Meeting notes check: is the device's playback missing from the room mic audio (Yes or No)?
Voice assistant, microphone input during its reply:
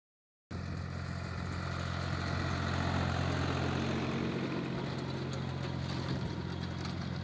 Yes